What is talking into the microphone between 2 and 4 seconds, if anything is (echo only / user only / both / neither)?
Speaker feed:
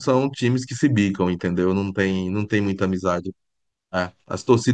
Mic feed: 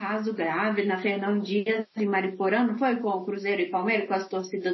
user only